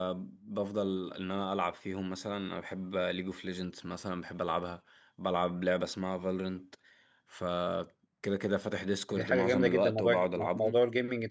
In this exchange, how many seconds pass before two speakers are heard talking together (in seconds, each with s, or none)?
9.1 s